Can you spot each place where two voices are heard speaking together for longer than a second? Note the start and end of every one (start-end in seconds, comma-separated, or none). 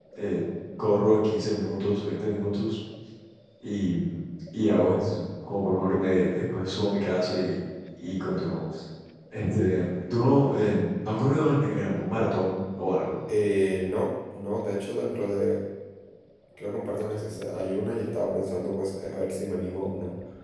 none